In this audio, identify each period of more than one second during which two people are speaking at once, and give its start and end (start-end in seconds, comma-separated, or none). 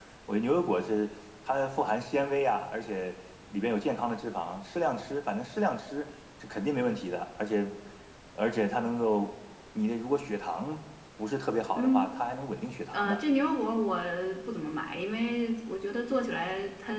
none